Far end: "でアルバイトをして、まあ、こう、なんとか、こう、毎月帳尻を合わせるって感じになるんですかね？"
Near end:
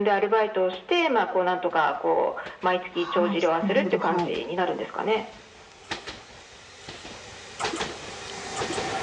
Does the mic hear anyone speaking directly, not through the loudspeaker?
Yes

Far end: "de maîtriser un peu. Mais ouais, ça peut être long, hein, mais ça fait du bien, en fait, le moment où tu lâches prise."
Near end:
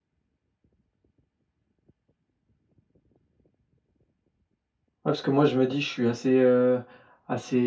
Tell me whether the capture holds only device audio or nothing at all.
No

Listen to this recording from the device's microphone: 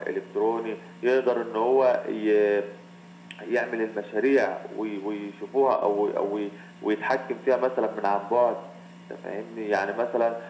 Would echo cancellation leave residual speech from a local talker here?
No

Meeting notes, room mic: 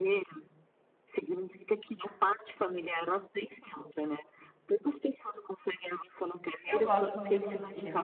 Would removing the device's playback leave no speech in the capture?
No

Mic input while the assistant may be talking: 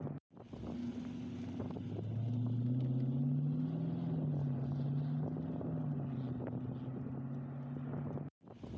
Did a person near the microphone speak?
No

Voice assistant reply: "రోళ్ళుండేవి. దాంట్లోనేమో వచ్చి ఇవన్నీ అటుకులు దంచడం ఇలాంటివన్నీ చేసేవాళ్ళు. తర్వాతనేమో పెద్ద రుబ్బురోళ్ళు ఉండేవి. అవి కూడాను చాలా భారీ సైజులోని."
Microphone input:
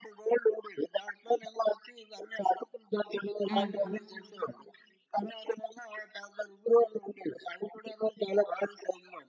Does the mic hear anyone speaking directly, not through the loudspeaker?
Yes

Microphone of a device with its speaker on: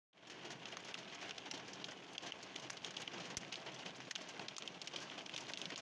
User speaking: No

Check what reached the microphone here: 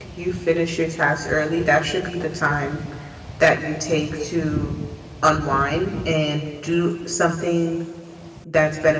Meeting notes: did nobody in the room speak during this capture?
No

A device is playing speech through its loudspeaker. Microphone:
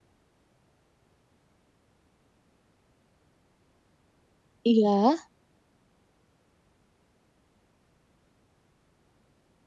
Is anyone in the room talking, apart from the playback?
Yes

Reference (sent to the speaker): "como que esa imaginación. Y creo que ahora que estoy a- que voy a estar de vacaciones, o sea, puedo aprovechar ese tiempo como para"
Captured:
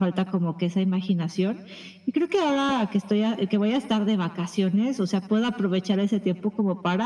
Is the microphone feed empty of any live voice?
Yes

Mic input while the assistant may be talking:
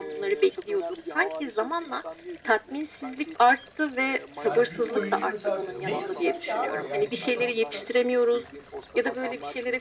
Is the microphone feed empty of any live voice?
No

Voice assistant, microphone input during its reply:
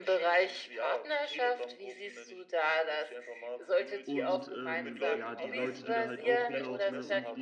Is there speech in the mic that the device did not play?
Yes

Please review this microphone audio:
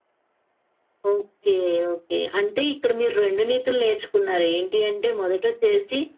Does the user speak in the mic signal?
No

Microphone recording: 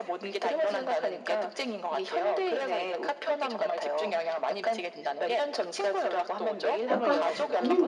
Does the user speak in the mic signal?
Yes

